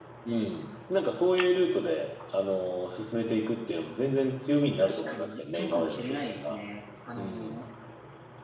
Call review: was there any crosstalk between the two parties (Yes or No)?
Yes